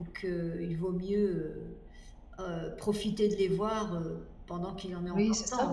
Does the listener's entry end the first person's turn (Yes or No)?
Yes